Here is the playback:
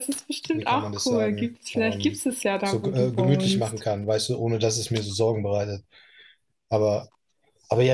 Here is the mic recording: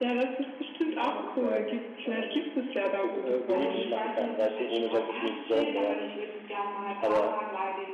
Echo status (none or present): present